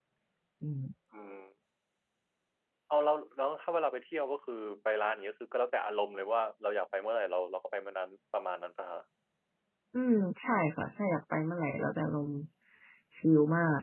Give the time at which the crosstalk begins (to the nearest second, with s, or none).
none